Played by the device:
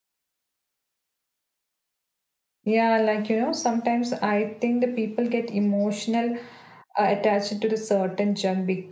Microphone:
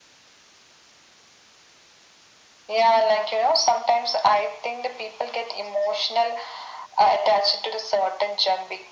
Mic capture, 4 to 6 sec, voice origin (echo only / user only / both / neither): echo only